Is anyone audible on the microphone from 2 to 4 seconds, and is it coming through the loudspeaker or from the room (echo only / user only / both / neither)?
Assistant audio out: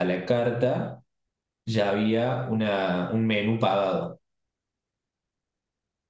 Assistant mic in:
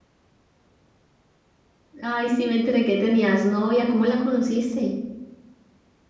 user only